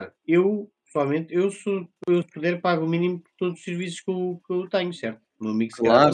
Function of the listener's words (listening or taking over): taking over